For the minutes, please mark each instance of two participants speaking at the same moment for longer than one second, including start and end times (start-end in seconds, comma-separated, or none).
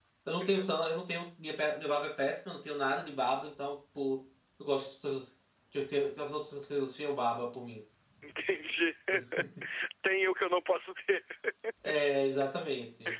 none